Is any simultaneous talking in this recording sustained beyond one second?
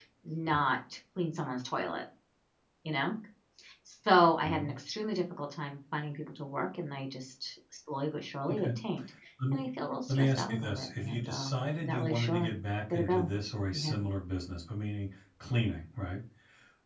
Yes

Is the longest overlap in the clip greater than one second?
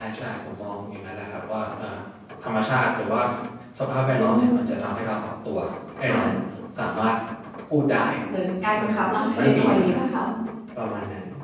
Yes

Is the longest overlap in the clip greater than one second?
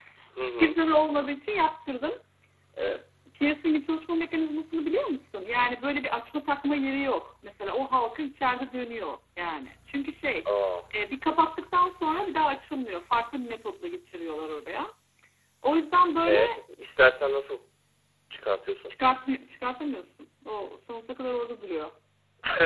No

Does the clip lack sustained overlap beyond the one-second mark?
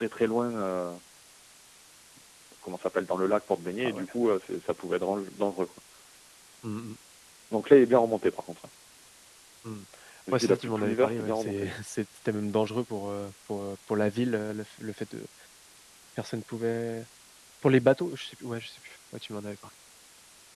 No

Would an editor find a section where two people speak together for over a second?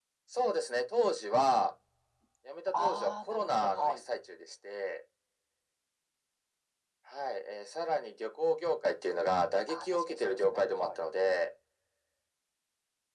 Yes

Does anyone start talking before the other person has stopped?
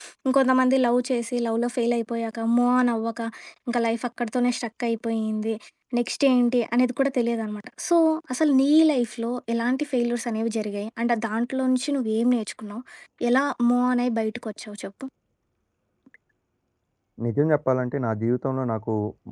No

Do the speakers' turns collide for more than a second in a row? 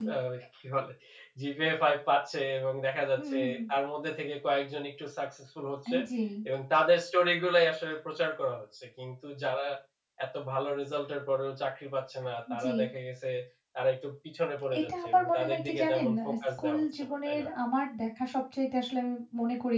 Yes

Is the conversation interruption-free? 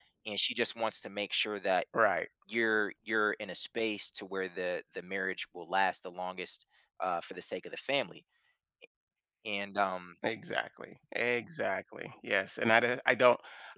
Yes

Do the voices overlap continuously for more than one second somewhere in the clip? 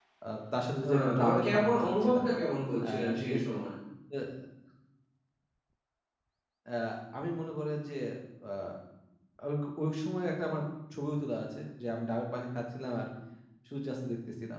Yes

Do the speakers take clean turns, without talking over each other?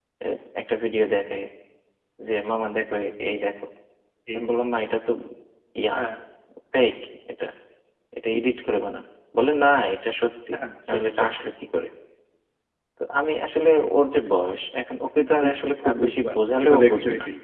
No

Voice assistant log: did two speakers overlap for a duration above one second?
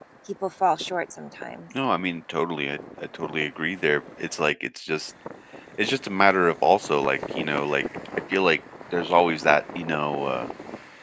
No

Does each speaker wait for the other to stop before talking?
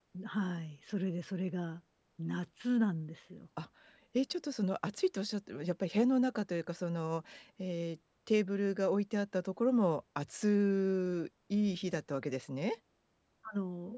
Yes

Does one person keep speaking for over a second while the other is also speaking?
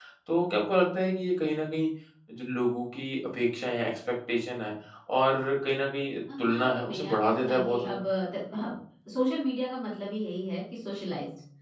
Yes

